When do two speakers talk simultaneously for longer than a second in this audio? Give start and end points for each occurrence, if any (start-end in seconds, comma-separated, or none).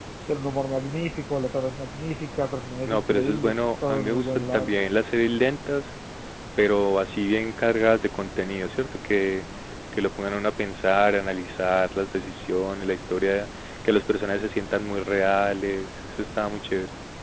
2.8-4.8